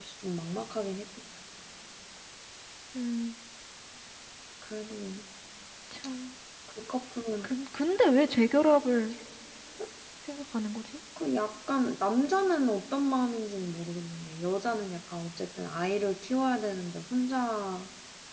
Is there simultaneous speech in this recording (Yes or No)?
No